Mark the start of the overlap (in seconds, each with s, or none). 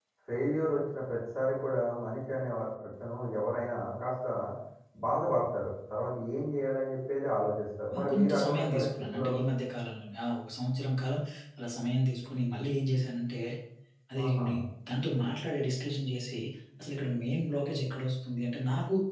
8.0 s